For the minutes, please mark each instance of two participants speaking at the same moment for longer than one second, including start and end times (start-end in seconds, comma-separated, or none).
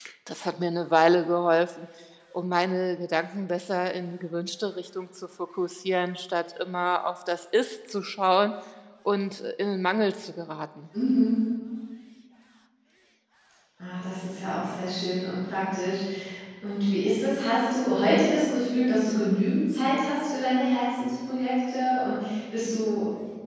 none